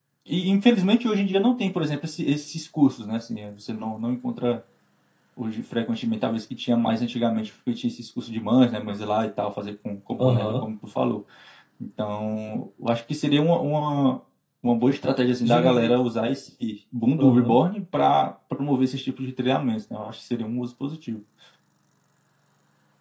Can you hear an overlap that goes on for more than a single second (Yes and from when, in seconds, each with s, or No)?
No